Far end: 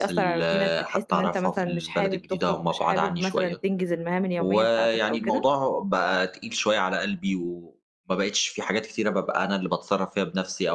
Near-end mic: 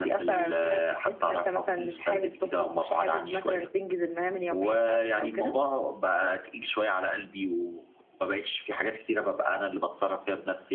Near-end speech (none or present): none